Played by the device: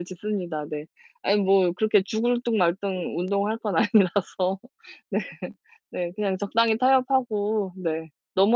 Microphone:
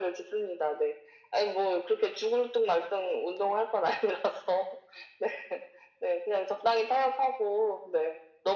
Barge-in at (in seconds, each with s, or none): none